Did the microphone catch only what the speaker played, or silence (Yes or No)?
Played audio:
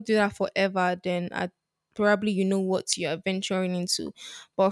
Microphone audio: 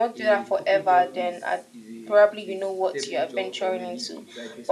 No